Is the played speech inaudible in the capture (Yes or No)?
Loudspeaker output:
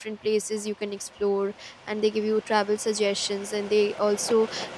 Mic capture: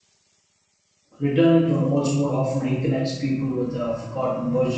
Yes